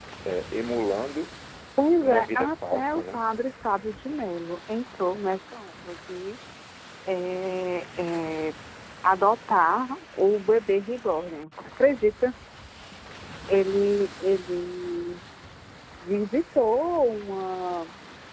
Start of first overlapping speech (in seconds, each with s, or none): 2.0 s